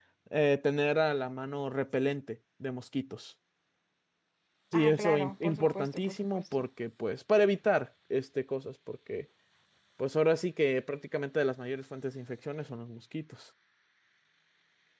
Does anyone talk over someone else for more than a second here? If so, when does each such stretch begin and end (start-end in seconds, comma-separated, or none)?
4.7-6.4